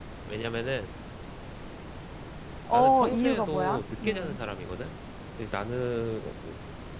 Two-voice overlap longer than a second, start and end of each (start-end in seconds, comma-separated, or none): 2.7-4.4